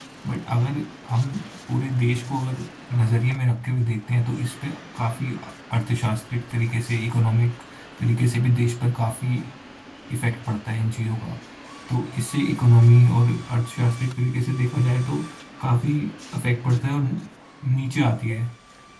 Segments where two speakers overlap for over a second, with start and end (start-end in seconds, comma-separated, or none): none